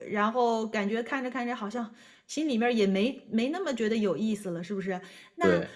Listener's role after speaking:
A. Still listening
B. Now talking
A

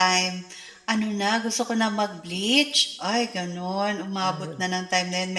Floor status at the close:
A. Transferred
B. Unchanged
B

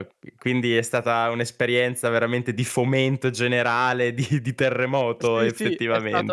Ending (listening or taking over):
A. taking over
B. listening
A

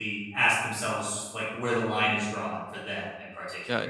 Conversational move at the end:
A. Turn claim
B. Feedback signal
A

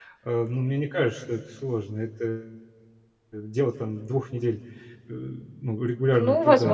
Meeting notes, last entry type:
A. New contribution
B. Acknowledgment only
A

